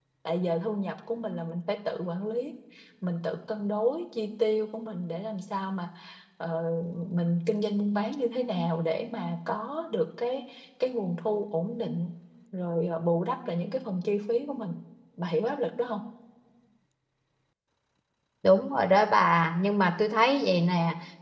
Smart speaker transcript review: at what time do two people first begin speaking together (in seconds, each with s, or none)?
none